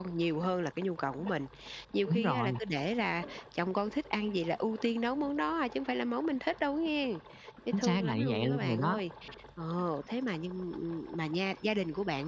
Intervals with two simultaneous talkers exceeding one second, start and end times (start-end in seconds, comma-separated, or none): 7.7-9.0